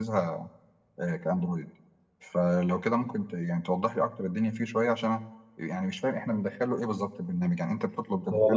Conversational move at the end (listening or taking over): taking over